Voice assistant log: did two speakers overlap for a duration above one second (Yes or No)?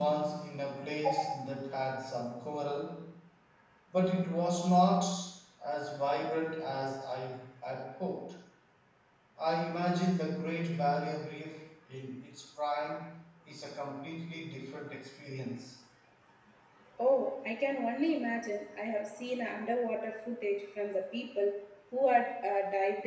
No